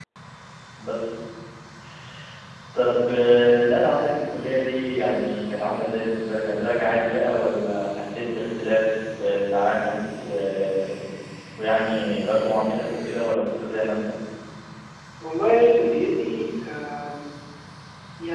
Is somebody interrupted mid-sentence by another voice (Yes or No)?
No